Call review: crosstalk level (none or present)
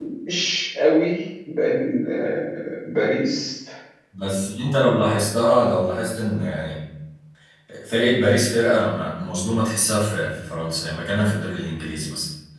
none